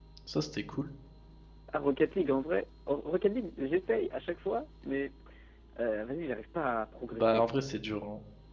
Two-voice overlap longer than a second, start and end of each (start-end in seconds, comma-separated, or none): none